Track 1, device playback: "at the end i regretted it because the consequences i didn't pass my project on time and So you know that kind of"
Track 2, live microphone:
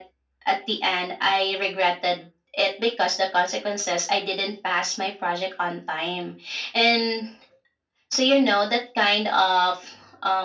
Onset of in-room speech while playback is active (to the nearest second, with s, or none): none